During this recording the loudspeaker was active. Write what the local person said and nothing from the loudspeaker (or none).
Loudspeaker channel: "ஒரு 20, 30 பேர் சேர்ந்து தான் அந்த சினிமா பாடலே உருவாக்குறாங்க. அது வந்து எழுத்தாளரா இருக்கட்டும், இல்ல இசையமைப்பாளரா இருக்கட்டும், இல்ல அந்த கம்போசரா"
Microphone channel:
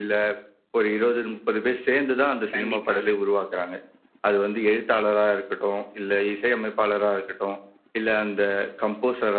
கண்டிப்பாங்க.